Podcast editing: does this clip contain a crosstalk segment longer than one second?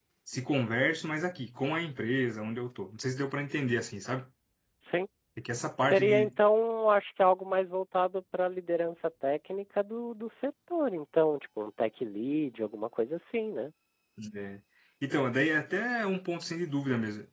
No

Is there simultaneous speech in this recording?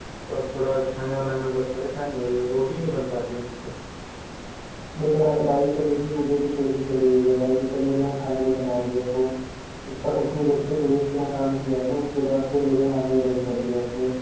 No

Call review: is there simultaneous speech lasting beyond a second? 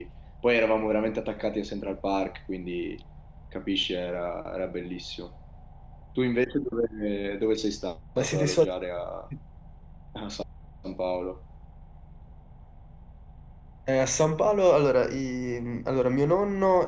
No

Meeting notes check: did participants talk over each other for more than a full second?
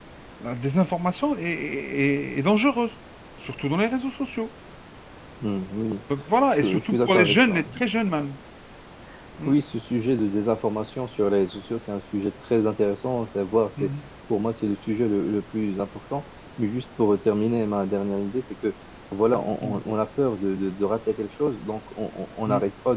Yes, from 6.5 s

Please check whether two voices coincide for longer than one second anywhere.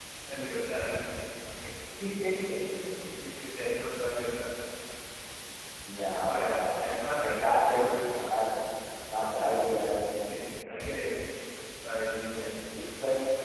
Yes, from 6.2 s

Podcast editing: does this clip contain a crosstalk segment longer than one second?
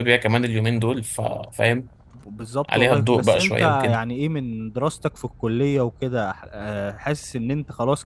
Yes, from 2.7 s

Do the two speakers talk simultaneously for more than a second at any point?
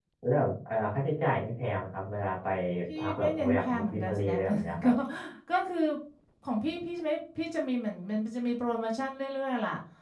Yes, from 3.0 s

